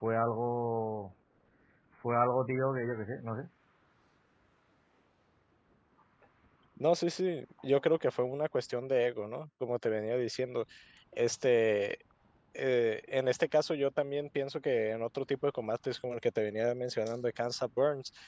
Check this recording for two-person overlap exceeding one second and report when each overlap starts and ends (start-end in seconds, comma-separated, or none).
none